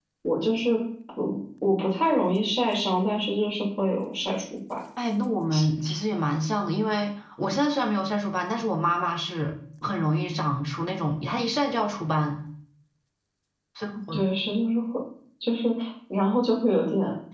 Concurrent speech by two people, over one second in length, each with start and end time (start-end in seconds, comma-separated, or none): none